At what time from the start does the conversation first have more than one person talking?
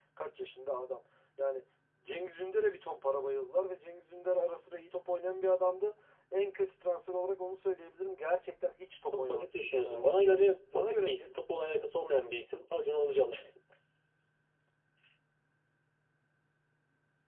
9.1 s

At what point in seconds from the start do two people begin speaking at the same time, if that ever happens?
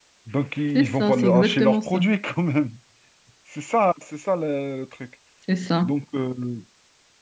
0.8 s

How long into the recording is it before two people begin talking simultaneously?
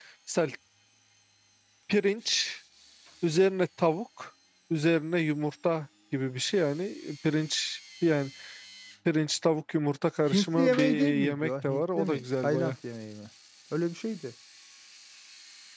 10.3 s

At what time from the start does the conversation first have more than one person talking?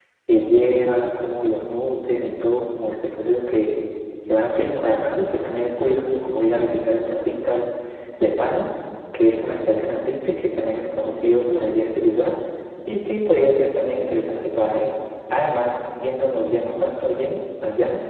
none

